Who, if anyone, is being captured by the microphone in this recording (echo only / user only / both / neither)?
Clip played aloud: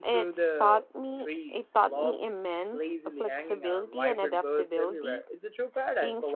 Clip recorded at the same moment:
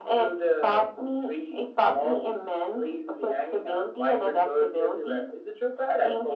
echo only